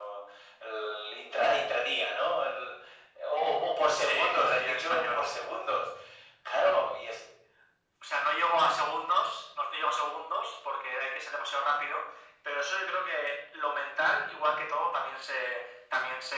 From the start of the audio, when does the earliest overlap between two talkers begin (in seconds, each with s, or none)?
4.0 s